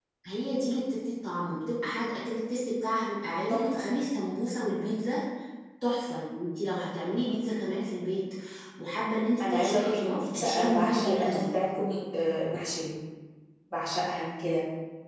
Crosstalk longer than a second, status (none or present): present